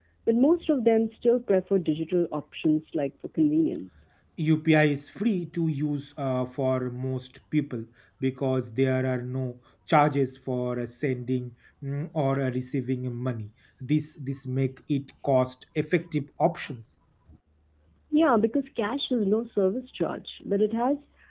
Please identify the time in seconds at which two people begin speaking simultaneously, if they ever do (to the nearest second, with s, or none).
none